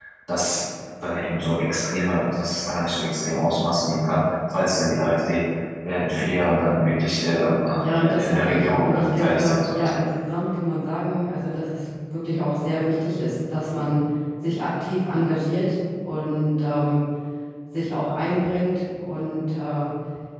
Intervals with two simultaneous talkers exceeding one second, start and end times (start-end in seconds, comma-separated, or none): 7.8-10.0